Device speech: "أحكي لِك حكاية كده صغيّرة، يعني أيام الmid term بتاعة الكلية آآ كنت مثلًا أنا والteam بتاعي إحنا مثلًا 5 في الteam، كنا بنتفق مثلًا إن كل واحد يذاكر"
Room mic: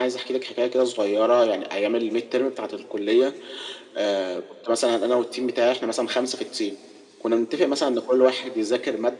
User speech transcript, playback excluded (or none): none